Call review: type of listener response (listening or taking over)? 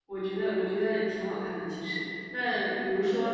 listening